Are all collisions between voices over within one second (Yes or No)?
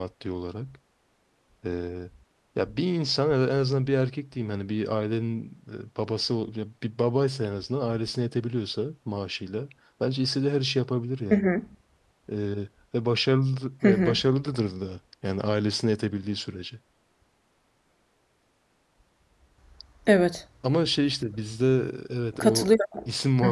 Yes